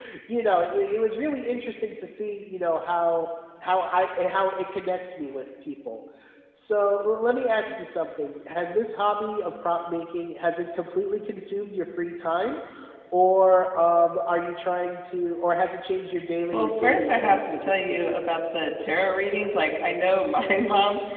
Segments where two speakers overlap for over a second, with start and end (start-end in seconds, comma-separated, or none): 16.5-18.2